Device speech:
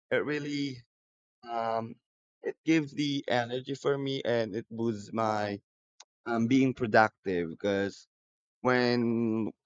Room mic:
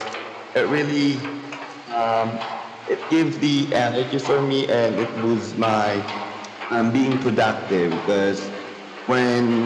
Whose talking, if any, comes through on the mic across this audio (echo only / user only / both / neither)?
echo only